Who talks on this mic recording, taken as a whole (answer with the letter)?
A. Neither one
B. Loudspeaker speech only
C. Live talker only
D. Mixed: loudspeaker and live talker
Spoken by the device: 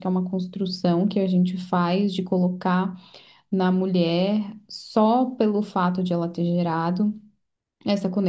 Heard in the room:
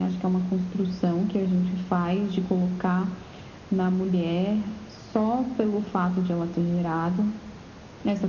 B